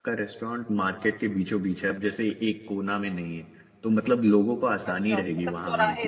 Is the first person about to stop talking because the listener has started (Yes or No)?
Yes